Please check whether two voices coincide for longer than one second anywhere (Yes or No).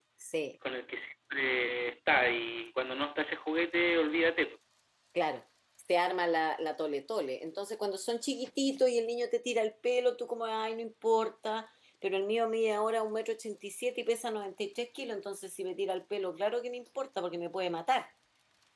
No